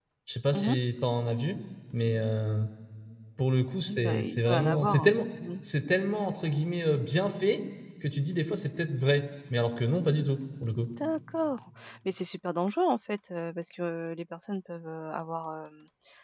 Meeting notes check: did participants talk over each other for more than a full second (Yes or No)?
Yes